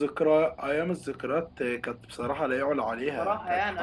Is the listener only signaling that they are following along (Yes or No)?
No